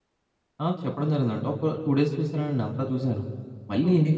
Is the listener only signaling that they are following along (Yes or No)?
Yes